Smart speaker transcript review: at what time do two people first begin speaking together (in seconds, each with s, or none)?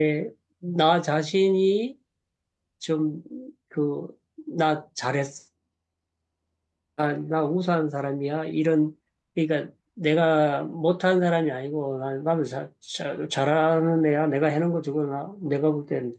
none